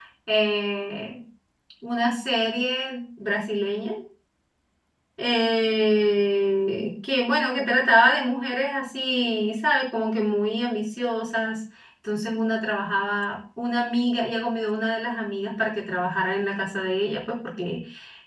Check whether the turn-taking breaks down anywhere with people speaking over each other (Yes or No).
No